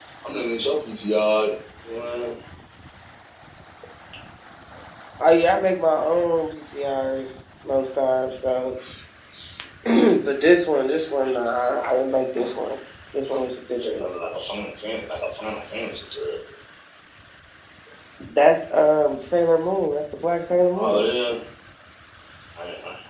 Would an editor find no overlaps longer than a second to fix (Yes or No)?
Yes